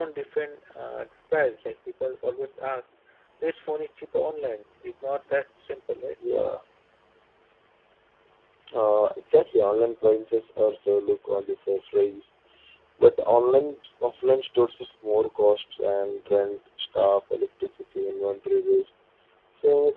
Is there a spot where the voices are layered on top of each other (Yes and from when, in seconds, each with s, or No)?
No